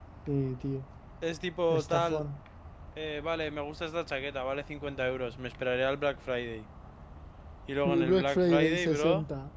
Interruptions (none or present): present